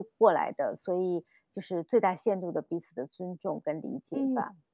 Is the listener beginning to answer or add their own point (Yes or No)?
Yes